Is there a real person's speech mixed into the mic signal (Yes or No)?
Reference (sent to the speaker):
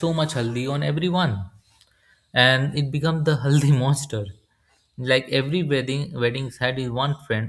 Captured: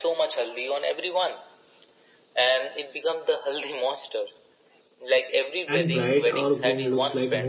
Yes